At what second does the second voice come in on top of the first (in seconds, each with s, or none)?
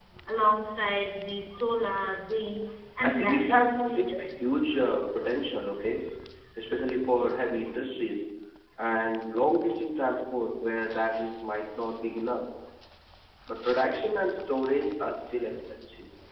3.0 s